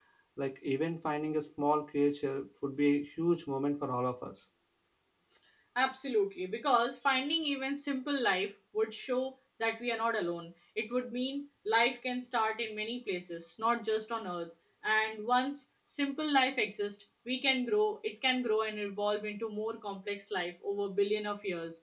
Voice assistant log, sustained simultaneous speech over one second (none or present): none